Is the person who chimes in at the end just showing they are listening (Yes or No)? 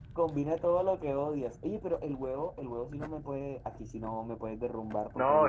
No